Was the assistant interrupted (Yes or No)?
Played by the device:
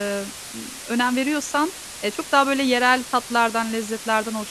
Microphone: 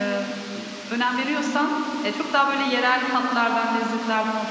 No